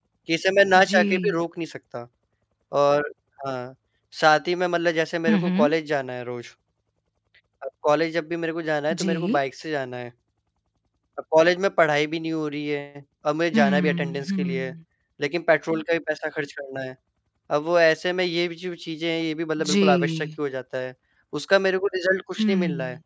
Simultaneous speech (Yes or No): Yes